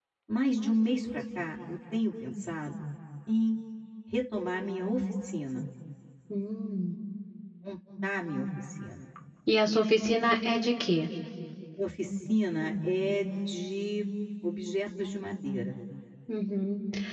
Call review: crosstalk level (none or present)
none